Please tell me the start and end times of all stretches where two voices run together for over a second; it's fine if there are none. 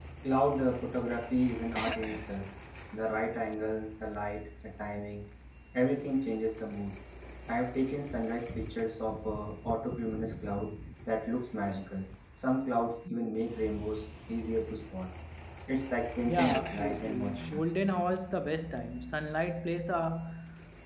16.3-17.6

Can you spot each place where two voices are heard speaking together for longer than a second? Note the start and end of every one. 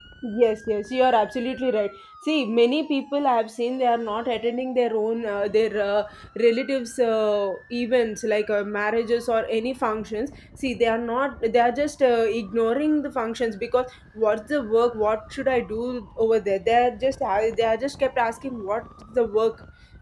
none

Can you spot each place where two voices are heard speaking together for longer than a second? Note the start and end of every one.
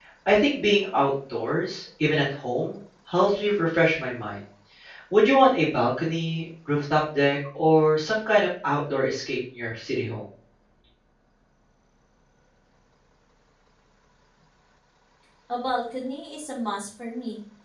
none

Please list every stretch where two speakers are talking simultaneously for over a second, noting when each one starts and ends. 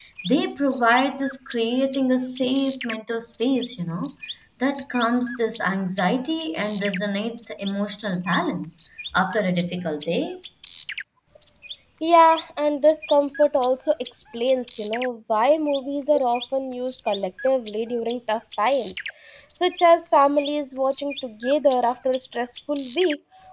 none

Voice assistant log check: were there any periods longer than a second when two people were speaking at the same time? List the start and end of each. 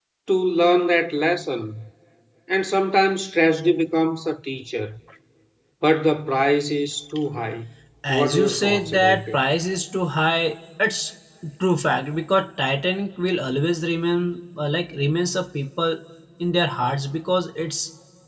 8.1-9.4

